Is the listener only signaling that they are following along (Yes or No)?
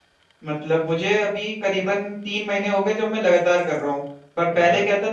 Yes